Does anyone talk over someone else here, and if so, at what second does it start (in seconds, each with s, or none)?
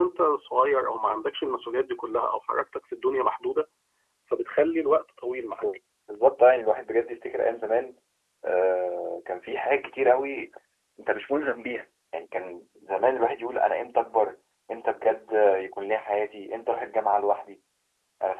none